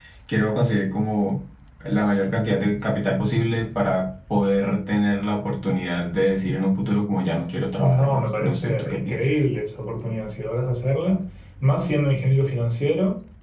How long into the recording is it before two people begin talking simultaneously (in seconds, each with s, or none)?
7.8 s